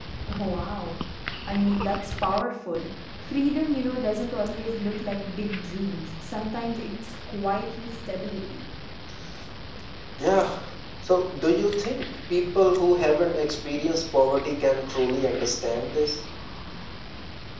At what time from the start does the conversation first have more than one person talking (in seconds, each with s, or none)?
none